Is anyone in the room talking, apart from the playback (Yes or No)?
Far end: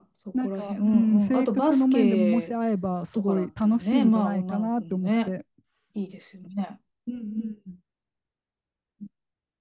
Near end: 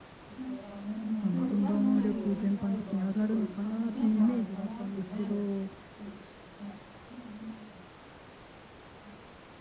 Yes